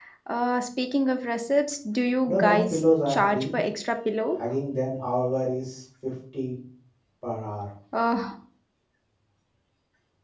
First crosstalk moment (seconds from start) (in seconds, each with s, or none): 2.3 s